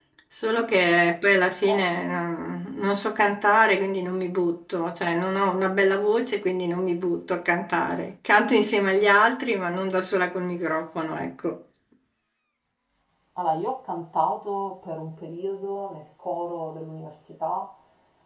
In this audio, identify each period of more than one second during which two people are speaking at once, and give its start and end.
none

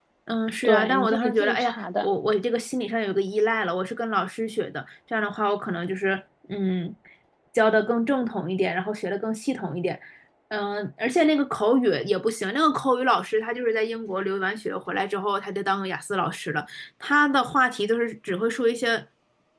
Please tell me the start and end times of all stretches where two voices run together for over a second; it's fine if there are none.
0.6-2.1

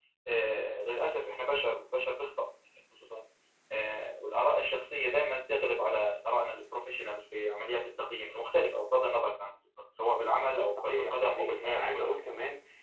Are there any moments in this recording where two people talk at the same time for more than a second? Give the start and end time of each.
10.8-12.1

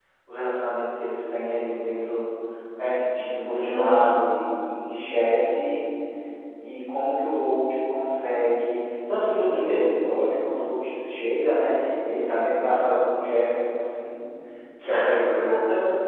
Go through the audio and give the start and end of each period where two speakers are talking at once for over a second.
none

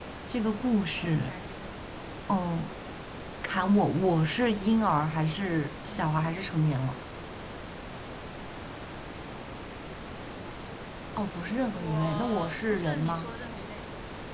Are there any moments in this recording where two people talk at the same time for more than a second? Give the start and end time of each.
11.7-13.3

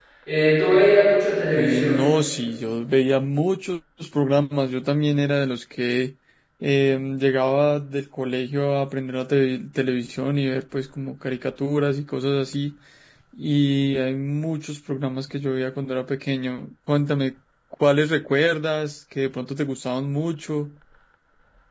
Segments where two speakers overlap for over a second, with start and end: none

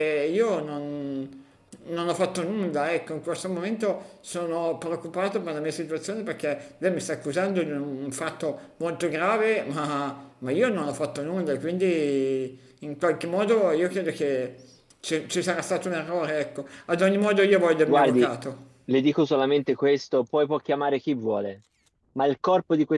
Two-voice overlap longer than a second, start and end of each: none

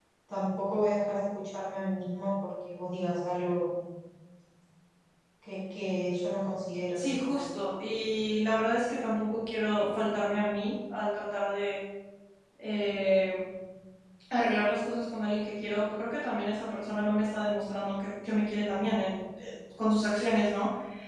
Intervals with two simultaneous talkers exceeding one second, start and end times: none

